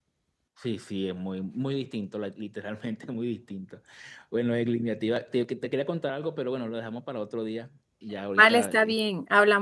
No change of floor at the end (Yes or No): No